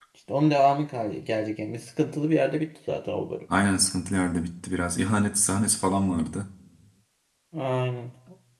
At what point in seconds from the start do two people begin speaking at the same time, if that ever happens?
none

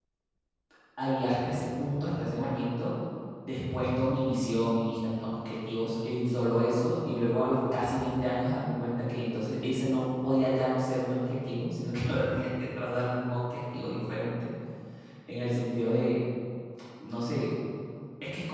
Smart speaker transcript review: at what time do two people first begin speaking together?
none

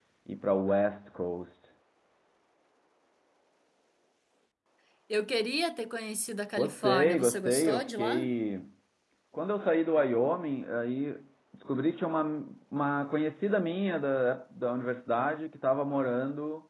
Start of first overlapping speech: 6.6 s

